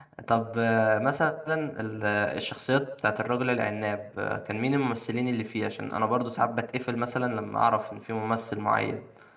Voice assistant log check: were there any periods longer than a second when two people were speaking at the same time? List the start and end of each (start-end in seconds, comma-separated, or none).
none